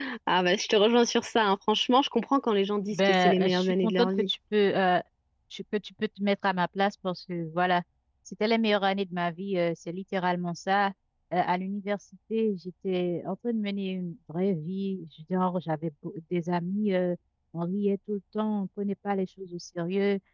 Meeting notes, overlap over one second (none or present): present